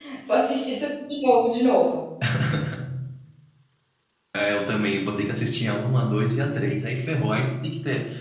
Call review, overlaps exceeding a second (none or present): none